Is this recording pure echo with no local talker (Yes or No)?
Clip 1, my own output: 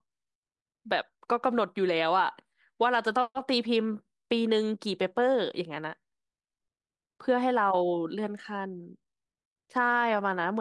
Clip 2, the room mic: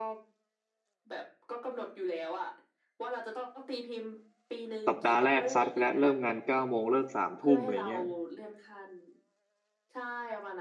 No